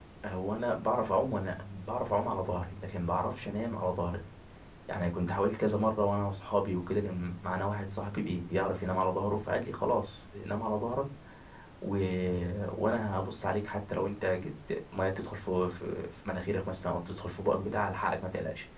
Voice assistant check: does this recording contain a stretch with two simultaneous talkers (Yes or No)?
No